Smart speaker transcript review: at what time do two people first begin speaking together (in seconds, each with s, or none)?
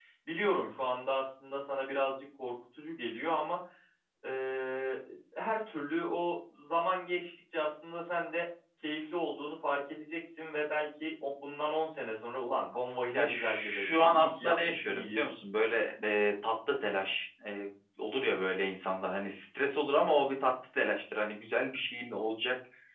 13.1 s